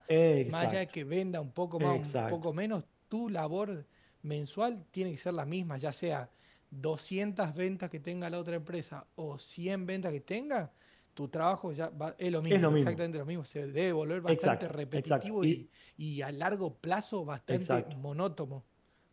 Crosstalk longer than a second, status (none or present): present